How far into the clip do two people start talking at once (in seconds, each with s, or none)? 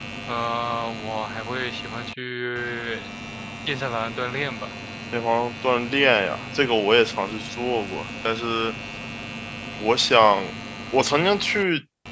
none